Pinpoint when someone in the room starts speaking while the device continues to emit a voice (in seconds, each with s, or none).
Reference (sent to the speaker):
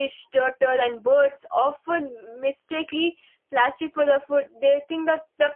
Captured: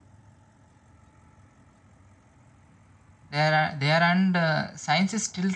3.3 s